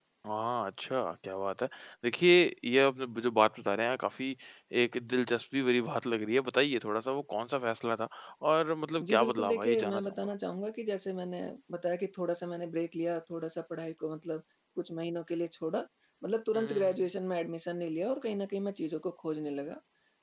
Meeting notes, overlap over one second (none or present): present